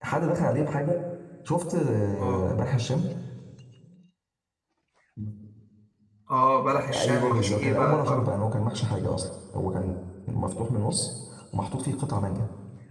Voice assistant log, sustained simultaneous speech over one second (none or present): present